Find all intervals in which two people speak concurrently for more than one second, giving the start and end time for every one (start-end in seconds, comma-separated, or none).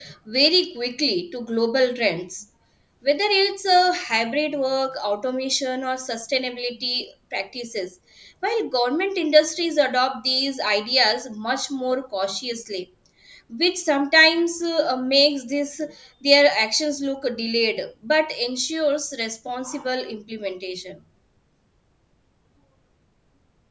none